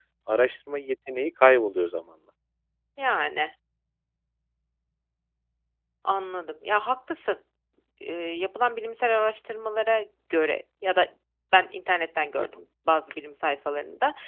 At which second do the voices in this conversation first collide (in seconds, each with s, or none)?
none